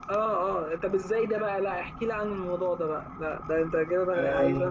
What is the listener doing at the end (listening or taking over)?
taking over